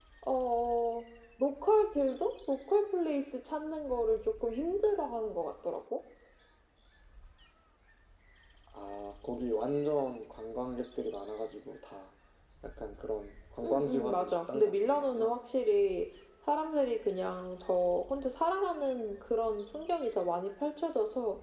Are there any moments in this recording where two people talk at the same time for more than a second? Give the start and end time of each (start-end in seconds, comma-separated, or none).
13.7-15.3